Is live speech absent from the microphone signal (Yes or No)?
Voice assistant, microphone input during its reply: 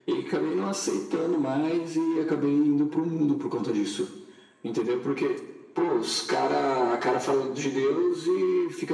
Yes